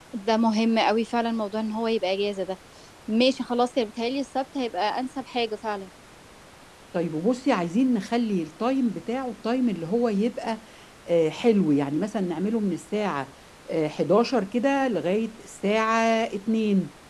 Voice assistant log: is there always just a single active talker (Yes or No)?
Yes